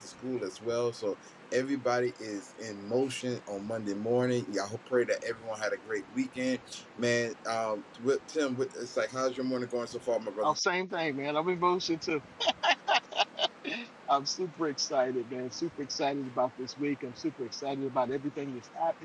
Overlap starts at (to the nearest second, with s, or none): none